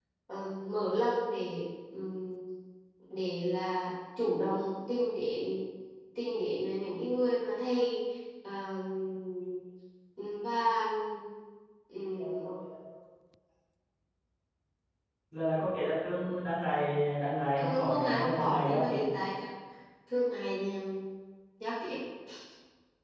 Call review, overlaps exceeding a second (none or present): present